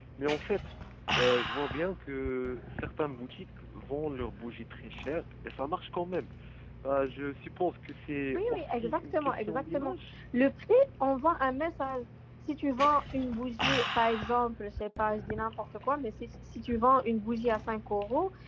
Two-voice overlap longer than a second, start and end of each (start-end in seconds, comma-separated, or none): 8.3-9.9